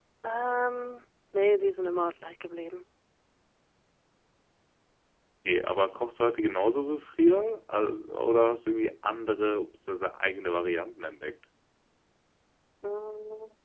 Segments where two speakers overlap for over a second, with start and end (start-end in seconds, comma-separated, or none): none